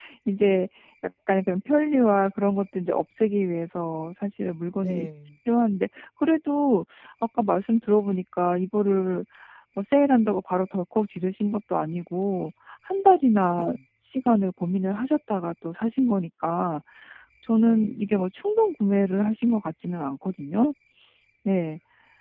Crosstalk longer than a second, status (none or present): none